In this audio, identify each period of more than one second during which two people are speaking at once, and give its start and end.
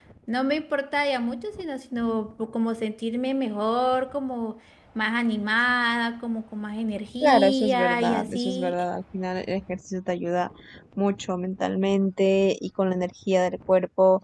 7.2-8.8

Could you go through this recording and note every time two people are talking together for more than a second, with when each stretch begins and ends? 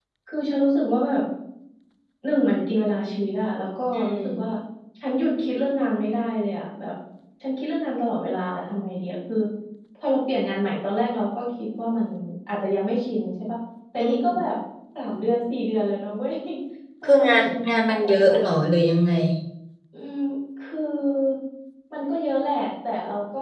17.0-18.6

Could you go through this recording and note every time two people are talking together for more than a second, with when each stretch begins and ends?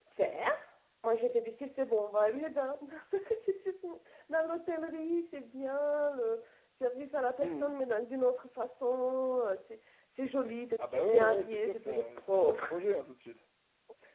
10.8-12.7

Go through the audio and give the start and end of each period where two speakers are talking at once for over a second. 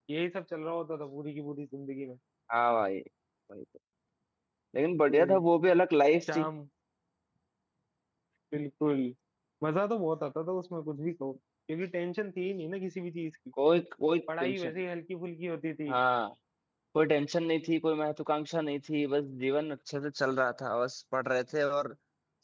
none

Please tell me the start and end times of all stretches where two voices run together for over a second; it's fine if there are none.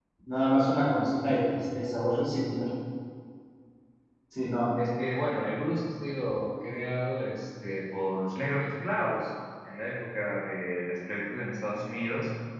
none

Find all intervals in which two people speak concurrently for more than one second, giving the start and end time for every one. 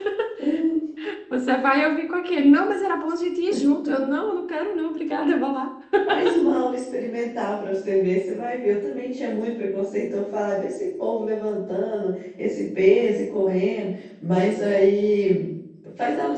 none

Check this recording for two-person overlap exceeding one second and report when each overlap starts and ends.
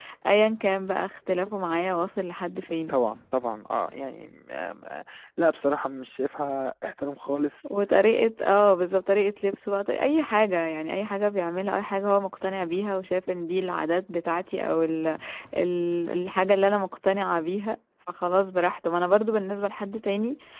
none

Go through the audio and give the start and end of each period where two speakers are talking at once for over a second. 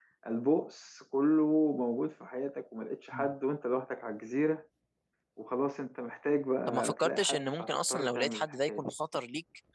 6.7-8.9

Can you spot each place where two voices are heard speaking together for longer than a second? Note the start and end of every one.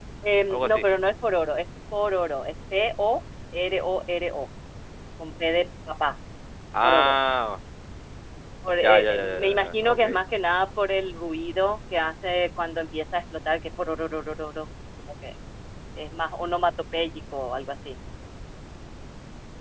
8.8-10.0

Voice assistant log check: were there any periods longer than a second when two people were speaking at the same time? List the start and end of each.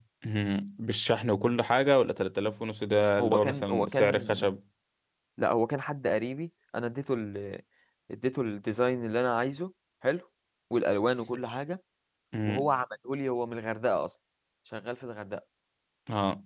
3.2-4.4

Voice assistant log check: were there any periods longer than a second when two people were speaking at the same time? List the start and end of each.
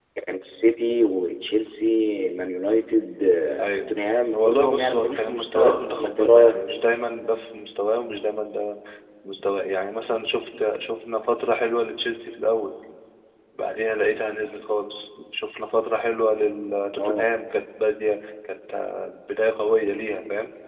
4.3-6.6

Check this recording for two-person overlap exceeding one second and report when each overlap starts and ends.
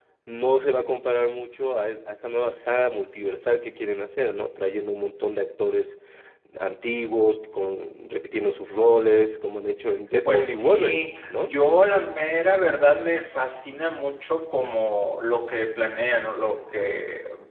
10.2-11.5

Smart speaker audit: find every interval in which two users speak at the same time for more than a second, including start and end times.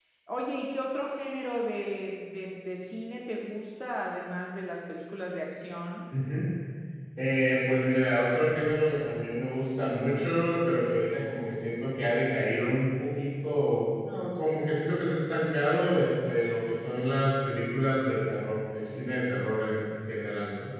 none

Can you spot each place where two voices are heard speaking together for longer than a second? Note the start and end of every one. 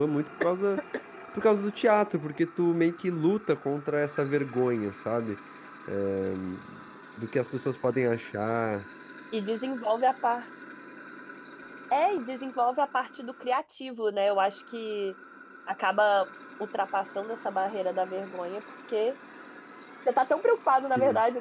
none

